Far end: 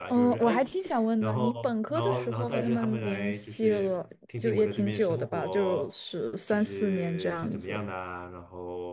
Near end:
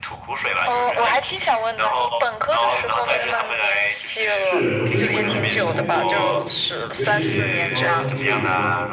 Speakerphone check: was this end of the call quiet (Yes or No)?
No